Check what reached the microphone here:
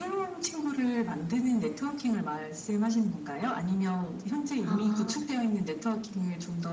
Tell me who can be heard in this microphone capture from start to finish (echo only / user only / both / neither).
both